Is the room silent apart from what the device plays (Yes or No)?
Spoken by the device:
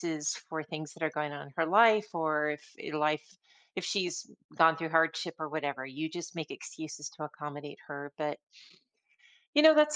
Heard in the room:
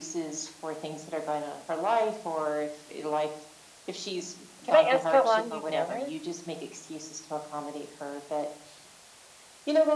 No